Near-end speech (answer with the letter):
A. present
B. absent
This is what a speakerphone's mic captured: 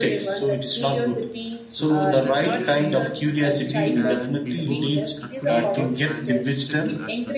A